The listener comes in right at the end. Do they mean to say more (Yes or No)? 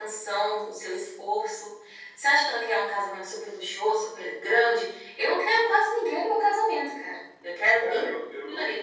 Yes